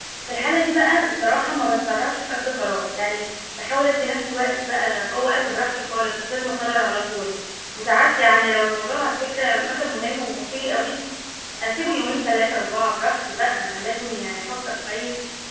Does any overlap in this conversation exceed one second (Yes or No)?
No